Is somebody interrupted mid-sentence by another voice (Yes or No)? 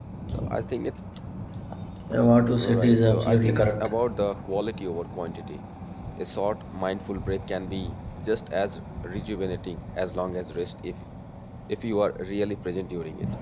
Yes